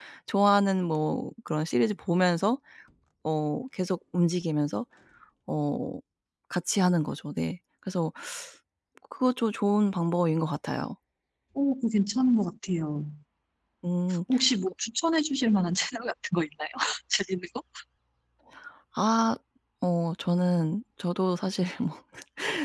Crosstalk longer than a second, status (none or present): none